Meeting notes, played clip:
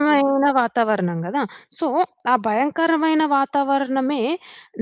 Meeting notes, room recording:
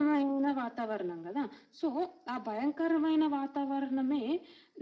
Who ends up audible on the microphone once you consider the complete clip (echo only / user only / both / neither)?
echo only